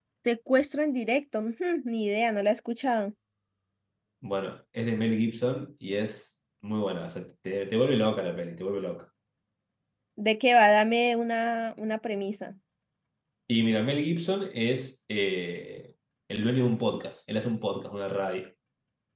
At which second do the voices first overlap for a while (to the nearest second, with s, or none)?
none